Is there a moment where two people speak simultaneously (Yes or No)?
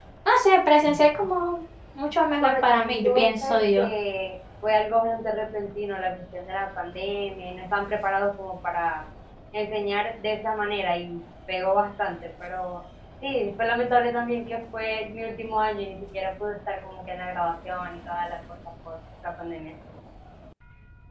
Yes